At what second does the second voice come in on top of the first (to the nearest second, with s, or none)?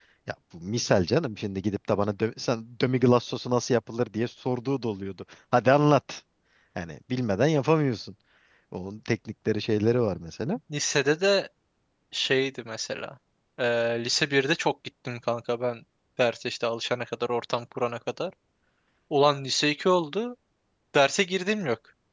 none